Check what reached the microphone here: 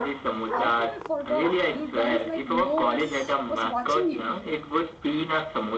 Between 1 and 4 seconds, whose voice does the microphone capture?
both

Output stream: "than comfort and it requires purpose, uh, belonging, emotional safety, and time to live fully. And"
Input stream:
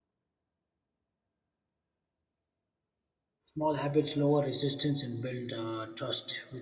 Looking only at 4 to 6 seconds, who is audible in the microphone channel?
user only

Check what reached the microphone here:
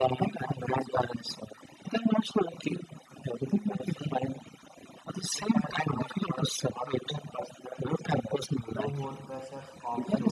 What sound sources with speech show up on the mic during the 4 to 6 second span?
echo only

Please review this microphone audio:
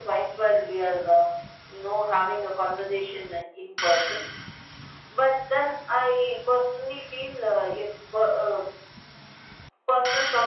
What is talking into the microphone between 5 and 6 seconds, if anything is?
echo only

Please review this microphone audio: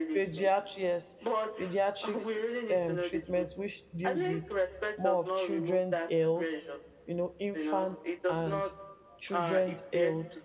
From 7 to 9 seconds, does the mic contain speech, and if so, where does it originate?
both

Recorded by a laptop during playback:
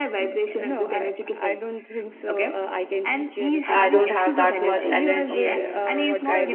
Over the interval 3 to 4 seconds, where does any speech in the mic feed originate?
both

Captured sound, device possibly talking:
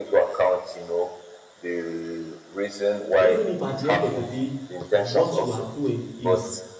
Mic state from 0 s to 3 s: echo only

